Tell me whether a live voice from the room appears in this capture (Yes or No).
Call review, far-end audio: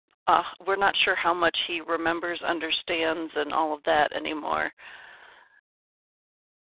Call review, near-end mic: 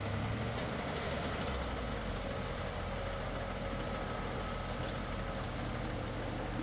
No